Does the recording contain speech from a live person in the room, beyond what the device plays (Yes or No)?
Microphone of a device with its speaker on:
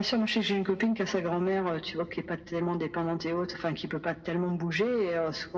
No